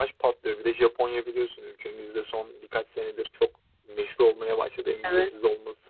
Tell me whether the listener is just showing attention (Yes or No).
Yes